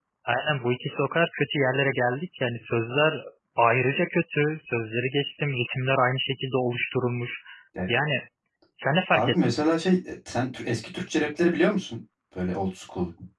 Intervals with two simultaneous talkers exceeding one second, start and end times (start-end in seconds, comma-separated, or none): none